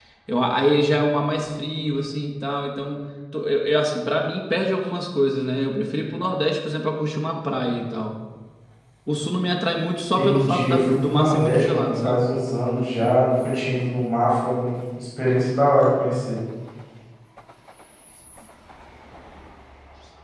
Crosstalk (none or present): present